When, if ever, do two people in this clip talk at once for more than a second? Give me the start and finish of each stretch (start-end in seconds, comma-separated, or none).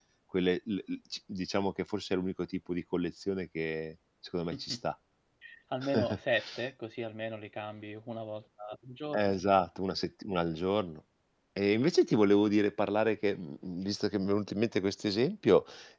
none